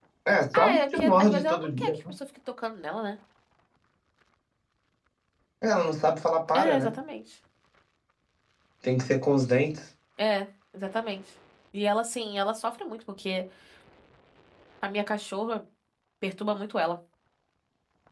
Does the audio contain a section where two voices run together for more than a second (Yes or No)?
Yes